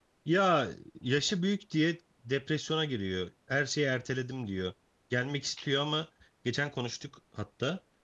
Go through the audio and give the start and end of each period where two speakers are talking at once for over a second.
none

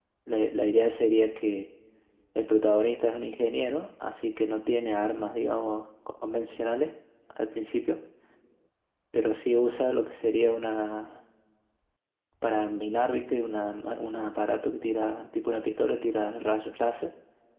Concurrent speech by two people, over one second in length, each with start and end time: none

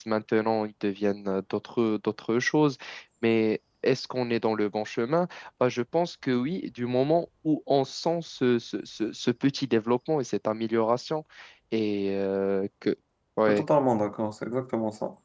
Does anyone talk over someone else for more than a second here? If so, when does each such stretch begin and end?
none

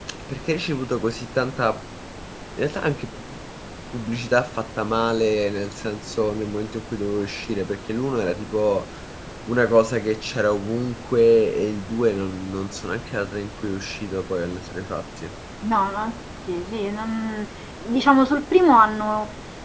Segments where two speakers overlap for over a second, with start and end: none

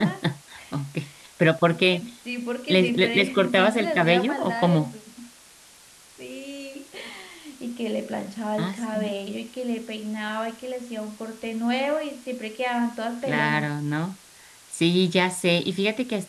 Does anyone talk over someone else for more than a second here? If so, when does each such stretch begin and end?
2.7-4.9

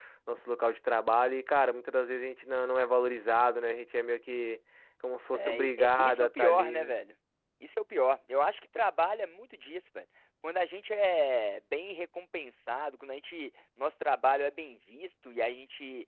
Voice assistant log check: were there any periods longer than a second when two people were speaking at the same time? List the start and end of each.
5.3-7.0

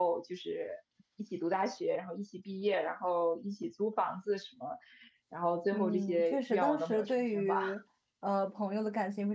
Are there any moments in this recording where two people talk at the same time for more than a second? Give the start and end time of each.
5.7-7.5

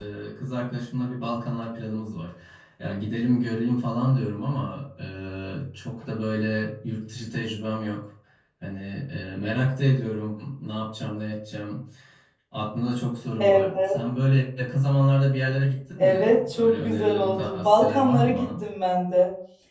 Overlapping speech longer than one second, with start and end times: 16.0-18.5

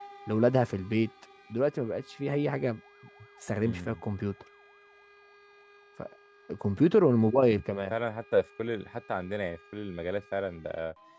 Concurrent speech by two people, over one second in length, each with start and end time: none

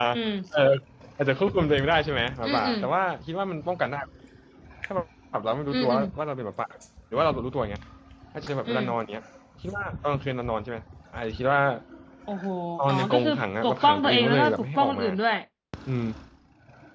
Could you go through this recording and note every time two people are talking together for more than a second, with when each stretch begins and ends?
12.9-15.1

